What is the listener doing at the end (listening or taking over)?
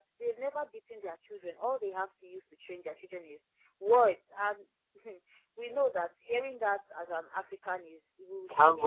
taking over